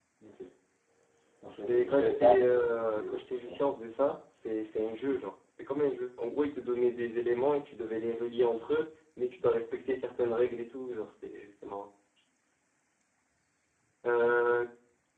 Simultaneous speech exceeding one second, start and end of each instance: 1.7-3.6

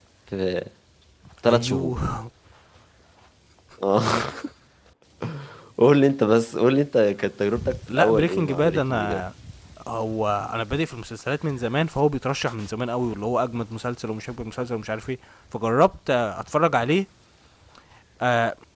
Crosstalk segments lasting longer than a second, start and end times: 7.9-9.2

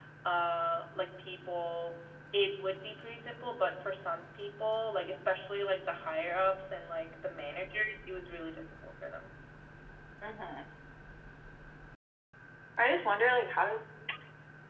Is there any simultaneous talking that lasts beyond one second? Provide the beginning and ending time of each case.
none

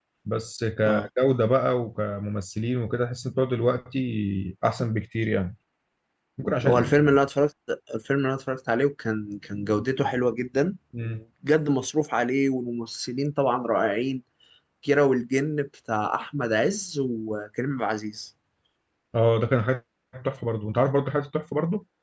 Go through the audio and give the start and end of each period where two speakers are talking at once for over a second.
none

